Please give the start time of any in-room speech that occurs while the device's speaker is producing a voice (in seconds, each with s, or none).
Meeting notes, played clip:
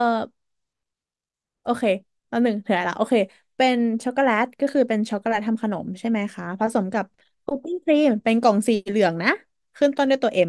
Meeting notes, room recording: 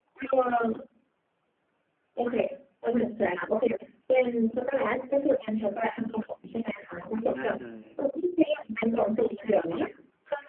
7.3 s